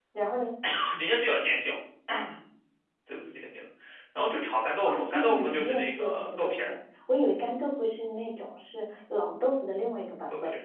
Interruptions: present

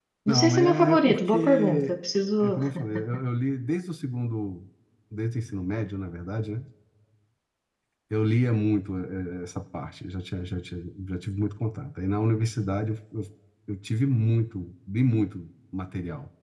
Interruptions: present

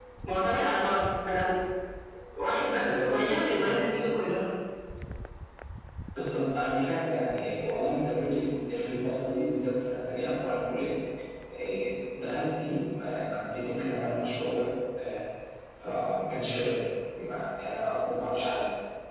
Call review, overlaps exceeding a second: present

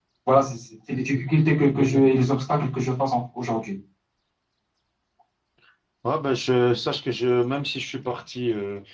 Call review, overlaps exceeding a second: none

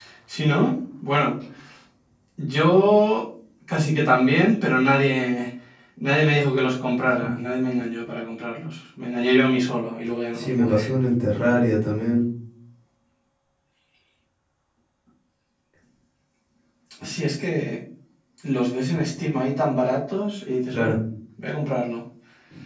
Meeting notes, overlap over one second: none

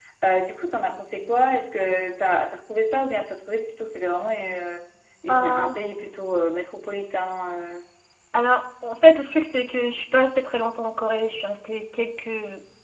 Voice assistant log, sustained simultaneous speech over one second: none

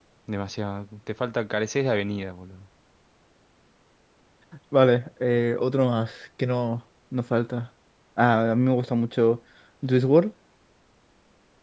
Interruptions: none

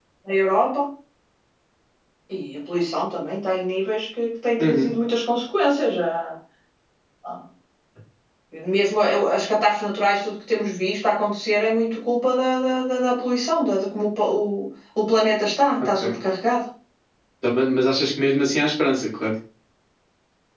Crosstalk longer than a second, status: none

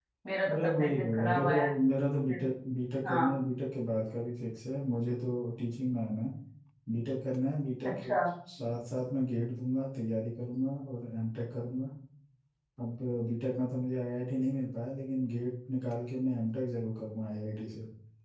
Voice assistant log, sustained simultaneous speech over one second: present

